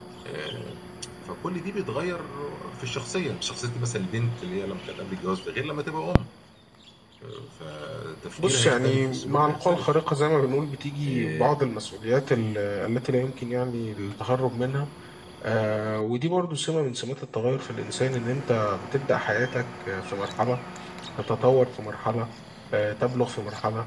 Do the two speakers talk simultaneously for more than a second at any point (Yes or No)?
Yes